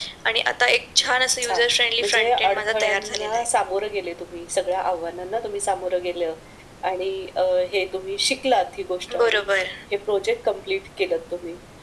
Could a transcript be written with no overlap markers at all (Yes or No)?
No